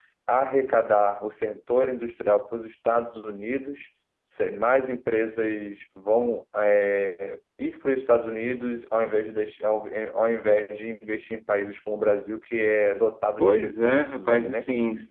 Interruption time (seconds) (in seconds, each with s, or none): 13.4 s